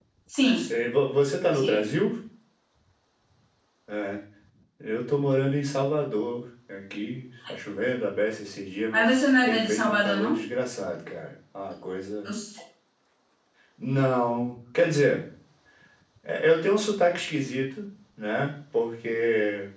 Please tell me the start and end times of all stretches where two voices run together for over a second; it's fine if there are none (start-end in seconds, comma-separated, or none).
8.9-10.4